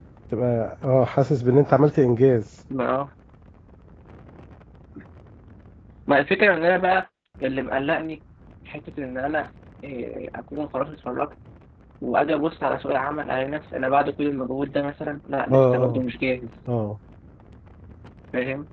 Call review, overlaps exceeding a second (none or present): none